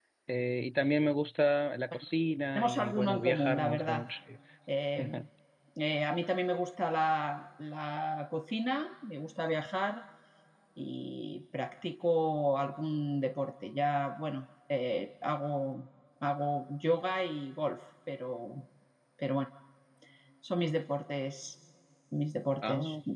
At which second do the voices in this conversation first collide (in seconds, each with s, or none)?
2.6 s